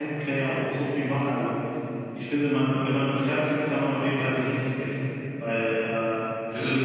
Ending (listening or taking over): listening